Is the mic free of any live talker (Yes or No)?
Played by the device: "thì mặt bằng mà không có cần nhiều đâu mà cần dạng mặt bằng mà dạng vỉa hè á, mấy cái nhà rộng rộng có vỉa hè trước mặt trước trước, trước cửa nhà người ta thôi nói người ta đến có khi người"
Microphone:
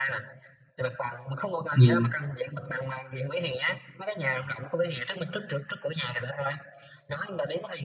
No